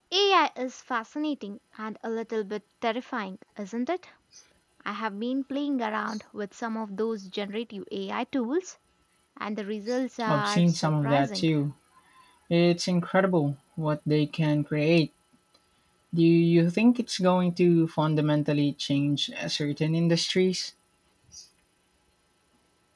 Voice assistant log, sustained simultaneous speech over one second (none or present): present